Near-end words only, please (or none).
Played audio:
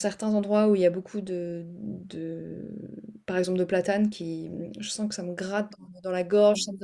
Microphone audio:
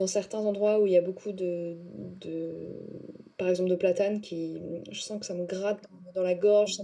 none